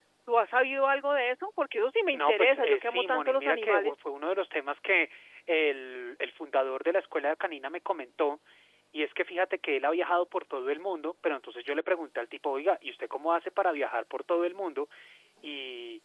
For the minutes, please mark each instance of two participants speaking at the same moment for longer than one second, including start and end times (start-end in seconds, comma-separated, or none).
2.1-3.9